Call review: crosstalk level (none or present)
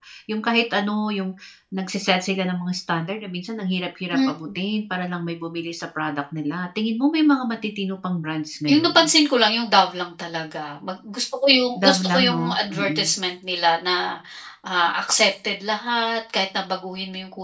present